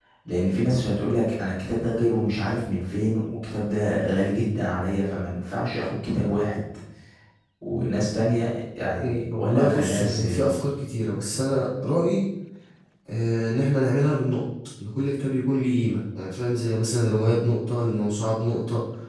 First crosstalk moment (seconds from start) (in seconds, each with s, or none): 9.0 s